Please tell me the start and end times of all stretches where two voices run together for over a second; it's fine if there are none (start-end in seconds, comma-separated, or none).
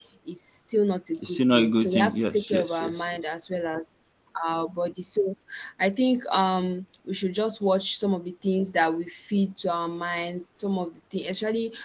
1.3-3.2